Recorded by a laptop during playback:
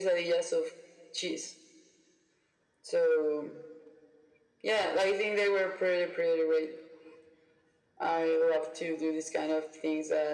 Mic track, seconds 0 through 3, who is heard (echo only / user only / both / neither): echo only